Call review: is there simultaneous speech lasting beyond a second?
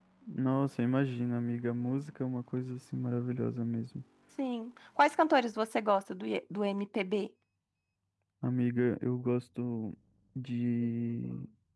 No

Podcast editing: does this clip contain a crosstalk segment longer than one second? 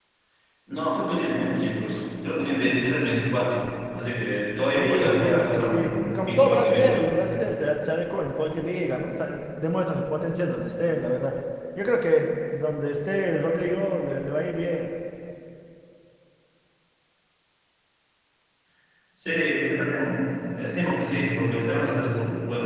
Yes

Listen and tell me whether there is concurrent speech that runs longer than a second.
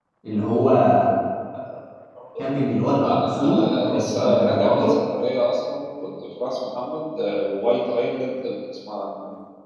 Yes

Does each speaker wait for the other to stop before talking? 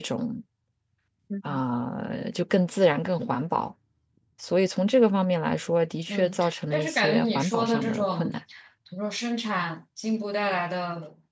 No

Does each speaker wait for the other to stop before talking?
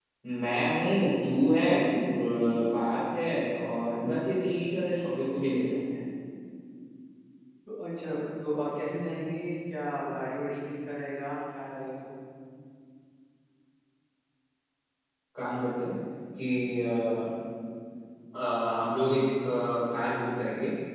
Yes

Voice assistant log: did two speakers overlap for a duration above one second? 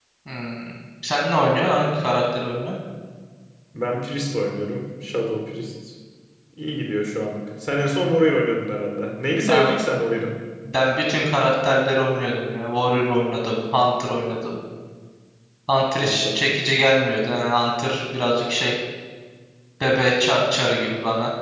No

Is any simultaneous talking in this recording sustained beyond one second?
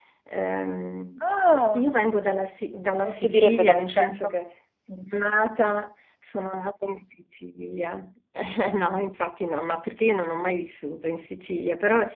Yes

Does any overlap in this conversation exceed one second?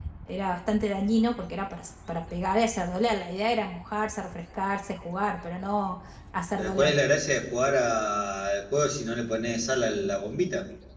No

